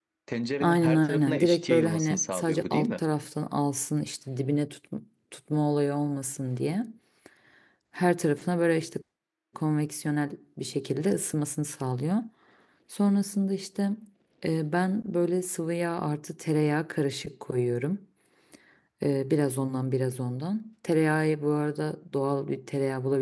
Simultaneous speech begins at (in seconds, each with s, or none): 0.6 s